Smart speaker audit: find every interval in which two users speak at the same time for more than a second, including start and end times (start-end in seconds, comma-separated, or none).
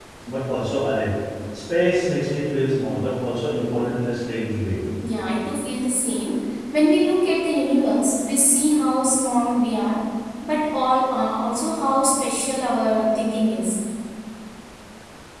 none